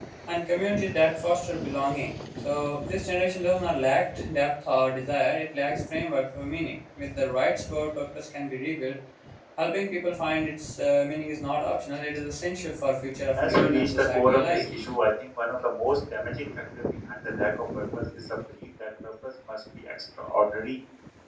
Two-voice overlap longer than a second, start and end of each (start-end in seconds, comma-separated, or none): 13.3-14.6